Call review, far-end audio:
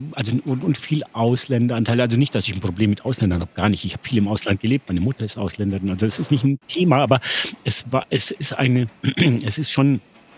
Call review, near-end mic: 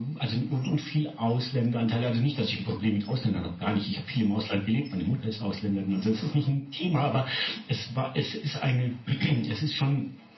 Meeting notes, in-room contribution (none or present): none